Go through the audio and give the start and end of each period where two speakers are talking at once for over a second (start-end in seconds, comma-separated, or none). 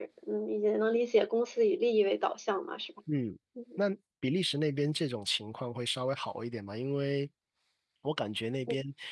none